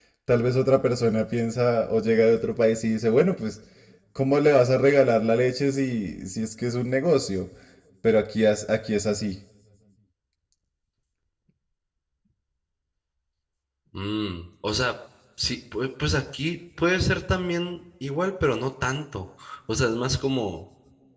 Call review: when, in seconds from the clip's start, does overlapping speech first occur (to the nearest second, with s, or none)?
none